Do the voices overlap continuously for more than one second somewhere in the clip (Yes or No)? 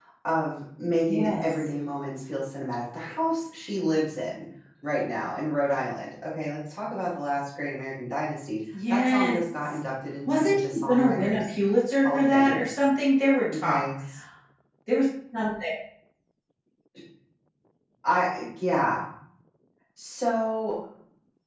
Yes